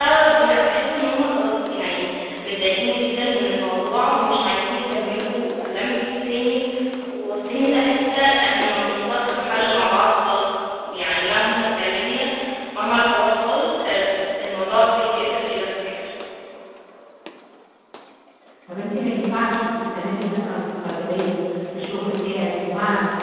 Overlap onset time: none

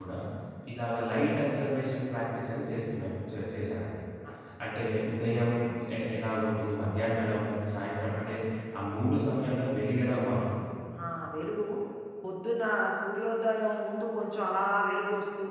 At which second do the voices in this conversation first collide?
none

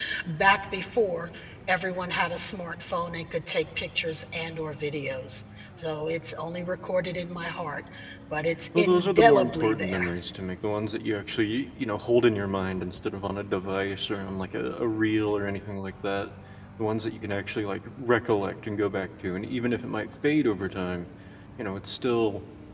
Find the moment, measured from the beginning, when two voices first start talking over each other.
9 s

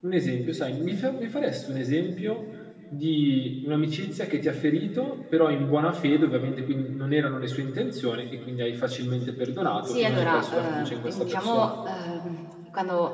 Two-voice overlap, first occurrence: 10 s

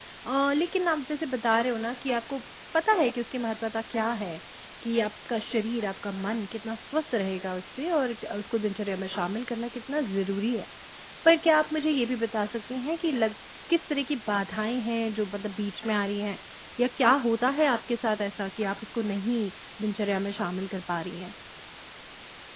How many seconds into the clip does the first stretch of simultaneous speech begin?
none

